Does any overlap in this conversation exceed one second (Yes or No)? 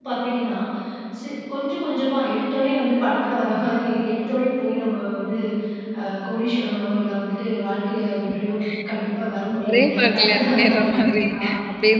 Yes